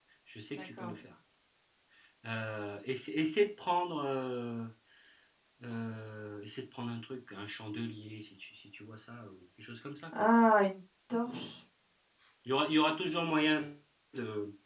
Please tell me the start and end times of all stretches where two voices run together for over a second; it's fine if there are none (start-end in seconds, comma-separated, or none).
none